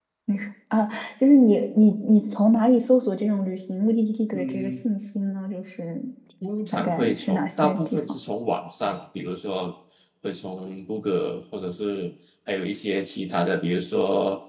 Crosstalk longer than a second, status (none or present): present